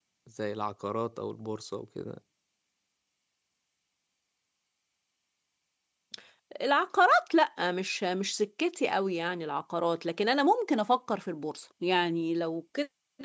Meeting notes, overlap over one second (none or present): none